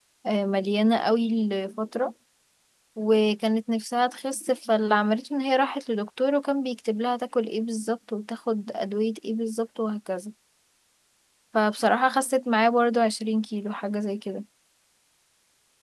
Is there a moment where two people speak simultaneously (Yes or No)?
No